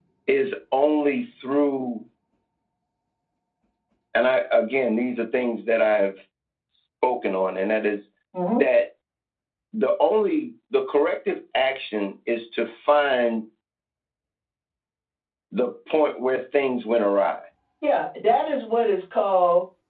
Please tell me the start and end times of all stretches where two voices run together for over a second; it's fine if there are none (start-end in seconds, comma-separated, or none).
none